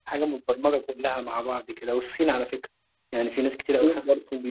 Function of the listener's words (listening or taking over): taking over